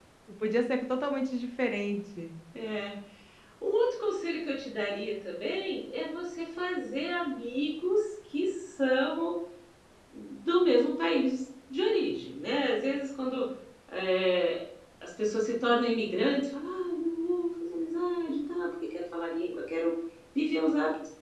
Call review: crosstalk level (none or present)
none